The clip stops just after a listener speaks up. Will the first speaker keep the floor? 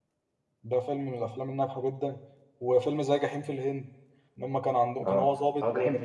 No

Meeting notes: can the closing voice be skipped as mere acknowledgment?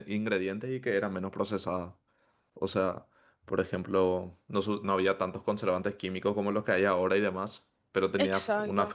Yes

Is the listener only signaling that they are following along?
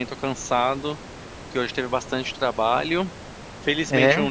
Yes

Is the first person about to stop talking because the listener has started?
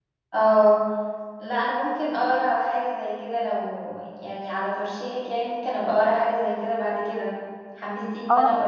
Yes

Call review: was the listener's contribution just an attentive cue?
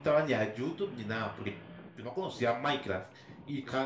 Yes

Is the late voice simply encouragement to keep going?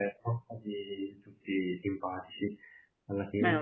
Yes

